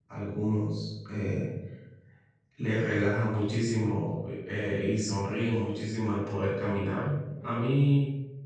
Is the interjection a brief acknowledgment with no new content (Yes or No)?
Yes